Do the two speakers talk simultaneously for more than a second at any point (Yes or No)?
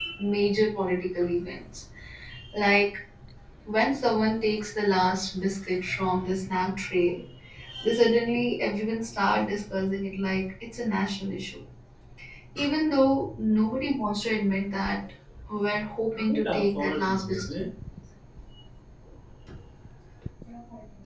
Yes